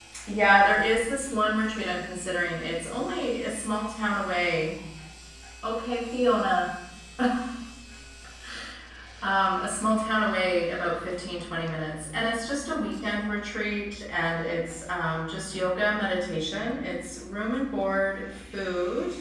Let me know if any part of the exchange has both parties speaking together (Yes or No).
No